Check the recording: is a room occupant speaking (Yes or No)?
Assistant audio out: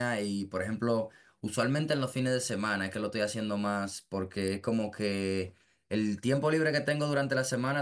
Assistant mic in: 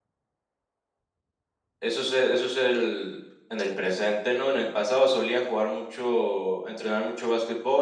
Yes